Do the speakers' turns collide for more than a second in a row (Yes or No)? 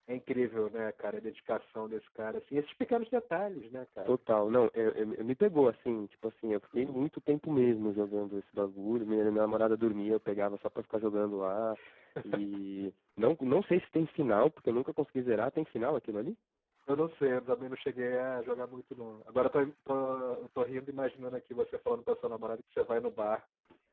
No